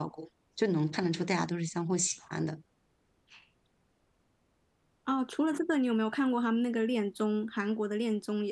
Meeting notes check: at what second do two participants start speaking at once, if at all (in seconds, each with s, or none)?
none